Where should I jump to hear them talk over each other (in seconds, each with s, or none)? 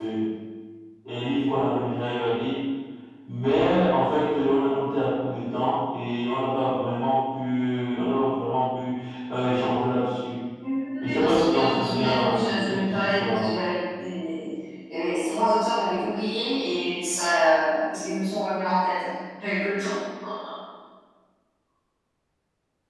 11.0 s